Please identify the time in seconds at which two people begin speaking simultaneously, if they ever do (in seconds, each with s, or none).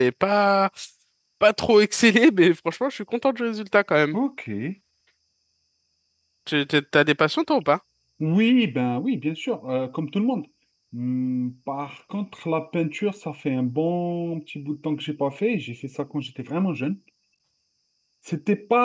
none